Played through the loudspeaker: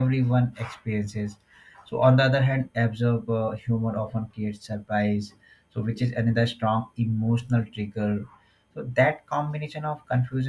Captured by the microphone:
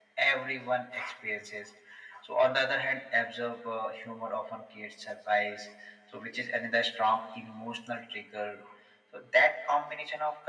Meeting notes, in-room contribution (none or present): none